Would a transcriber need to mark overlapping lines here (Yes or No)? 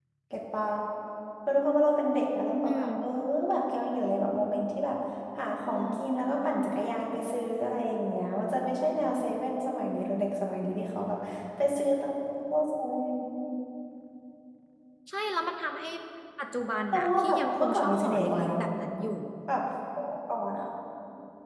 Yes